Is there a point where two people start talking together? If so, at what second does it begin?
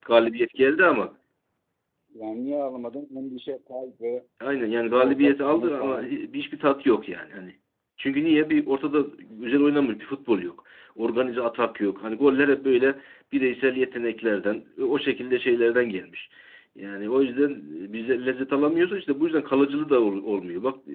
4.9 s

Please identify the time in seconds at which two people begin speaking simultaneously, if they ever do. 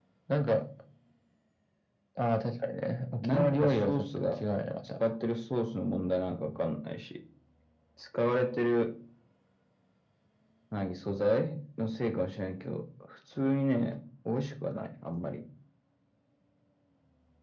3.2 s

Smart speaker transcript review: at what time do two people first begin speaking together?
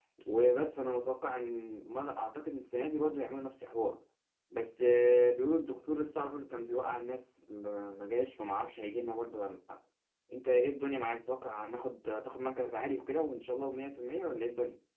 none

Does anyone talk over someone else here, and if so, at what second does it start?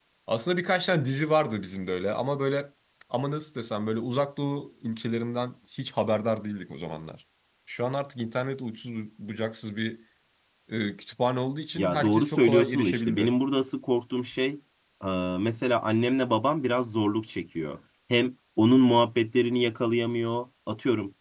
11.8 s

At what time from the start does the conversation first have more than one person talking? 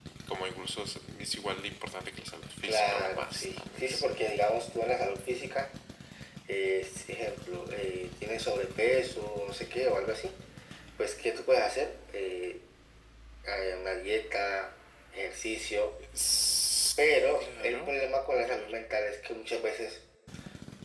2.6 s

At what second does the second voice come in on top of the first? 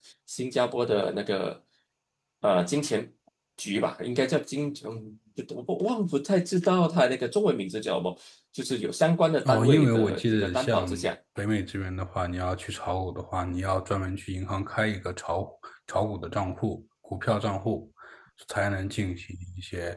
9.4 s

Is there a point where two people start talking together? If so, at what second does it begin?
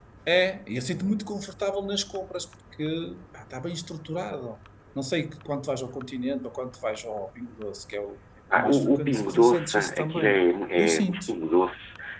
8.6 s

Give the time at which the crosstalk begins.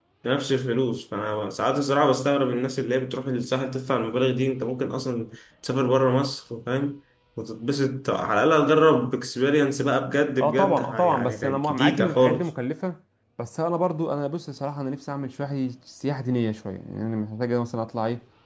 10.4 s

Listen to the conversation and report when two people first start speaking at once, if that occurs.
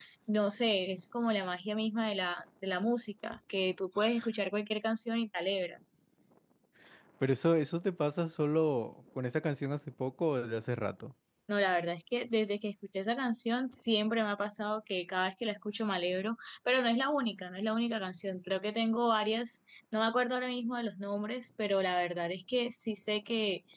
none

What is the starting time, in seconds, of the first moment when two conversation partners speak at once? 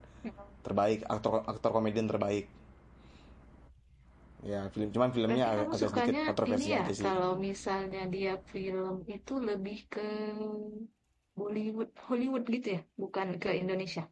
5.3 s

